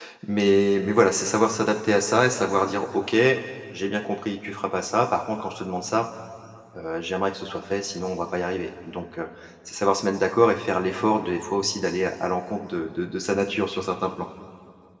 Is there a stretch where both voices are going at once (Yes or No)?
No